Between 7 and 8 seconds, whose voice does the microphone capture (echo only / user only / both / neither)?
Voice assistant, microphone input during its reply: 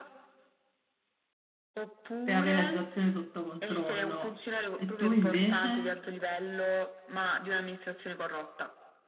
echo only